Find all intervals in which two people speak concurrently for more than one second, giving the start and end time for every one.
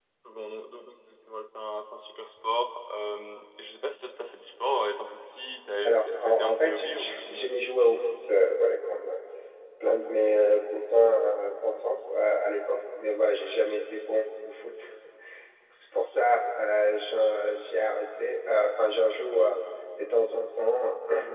5.8-7.5

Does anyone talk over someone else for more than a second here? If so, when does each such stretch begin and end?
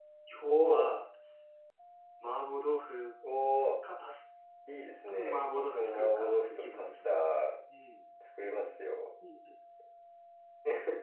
5.1-7.0

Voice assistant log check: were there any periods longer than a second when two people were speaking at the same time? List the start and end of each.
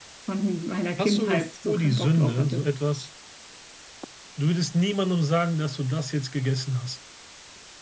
1.0-2.6

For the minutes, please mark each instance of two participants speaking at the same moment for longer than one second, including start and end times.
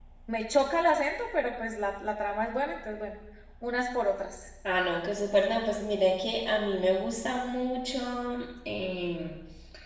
none

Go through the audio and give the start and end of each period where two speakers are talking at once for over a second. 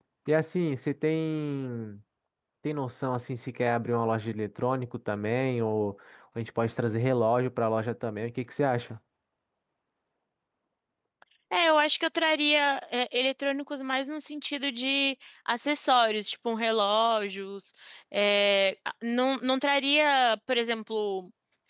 none

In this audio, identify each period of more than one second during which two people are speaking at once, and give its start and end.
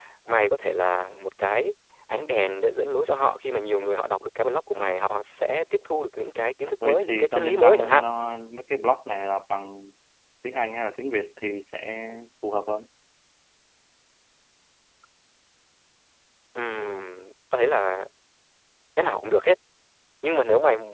6.8-8.0

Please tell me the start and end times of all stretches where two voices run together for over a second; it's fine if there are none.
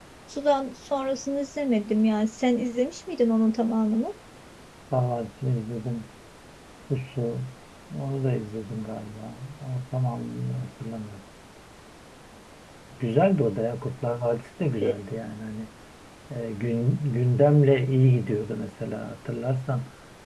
none

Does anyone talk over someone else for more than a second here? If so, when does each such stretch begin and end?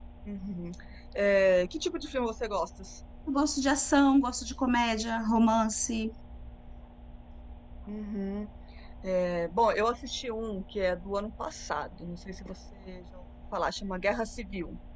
none

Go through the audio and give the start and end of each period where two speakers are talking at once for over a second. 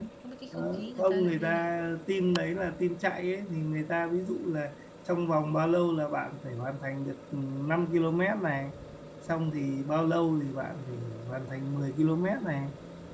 0.5-1.7

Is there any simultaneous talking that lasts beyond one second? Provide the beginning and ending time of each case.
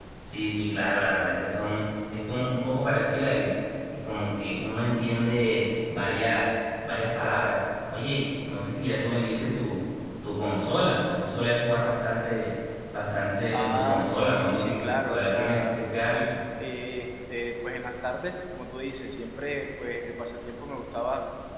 13.5-15.8

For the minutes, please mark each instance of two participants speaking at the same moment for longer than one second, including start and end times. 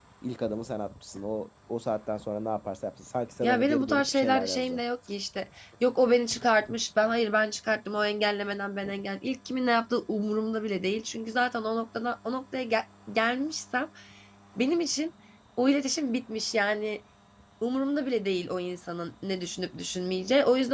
3.4-4.8

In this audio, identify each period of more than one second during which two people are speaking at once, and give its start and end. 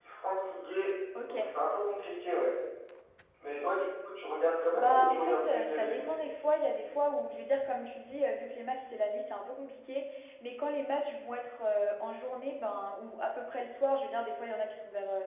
4.7-6.2

